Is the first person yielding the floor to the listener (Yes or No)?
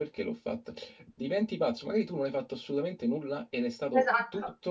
No